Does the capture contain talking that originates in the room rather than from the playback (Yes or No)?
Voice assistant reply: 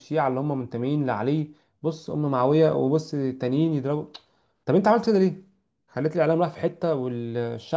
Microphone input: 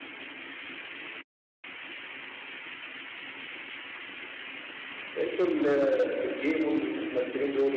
Yes